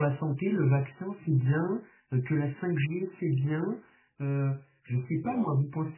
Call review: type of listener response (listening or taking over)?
listening